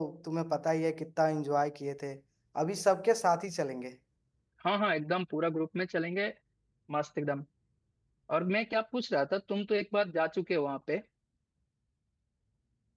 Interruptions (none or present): none